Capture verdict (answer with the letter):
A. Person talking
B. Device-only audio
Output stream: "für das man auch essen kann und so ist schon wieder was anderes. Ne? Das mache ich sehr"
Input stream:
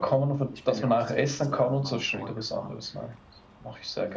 A